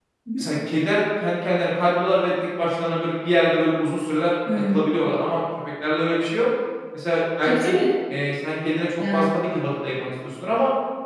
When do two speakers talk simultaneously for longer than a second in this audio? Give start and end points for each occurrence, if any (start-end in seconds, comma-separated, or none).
none